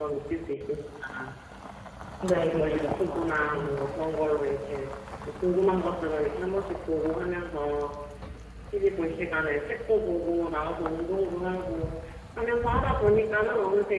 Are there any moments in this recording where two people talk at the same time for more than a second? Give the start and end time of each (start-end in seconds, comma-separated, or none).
2.6-3.9